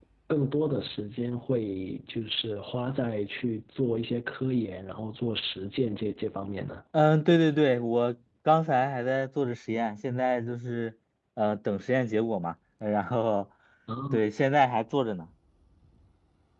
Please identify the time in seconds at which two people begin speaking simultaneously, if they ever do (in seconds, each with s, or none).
none